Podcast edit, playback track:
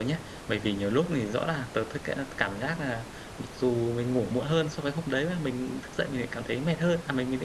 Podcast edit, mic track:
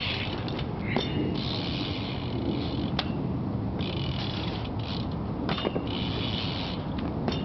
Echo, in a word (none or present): none